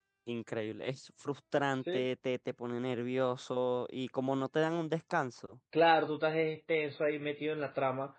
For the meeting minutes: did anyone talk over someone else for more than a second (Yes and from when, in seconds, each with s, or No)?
No